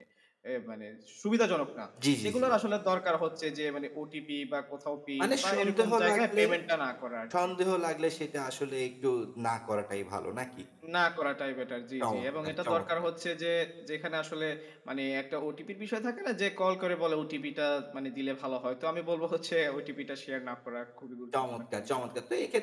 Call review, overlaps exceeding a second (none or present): present